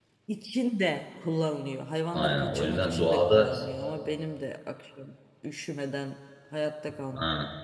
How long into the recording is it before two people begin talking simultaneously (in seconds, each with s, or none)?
2.1 s